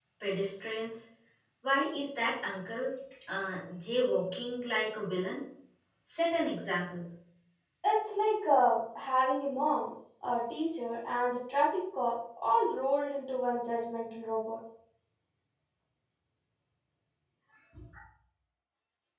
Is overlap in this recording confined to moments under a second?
Yes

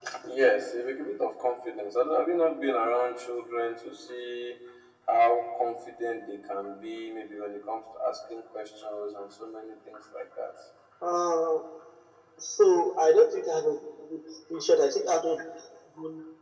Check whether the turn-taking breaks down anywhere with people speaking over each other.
No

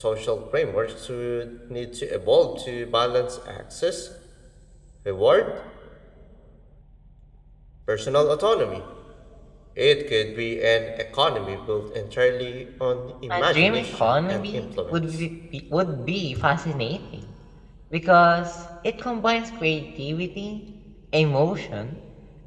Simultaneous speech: Yes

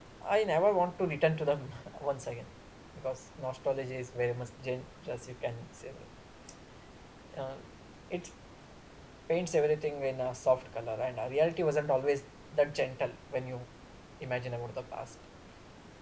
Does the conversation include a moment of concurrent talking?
No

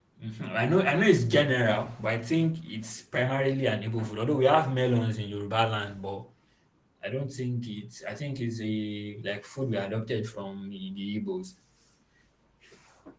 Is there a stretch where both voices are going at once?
No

